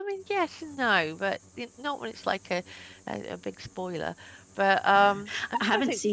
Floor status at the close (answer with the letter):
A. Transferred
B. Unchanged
A